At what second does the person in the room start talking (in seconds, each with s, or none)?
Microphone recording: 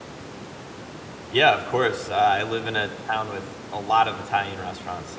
1.3 s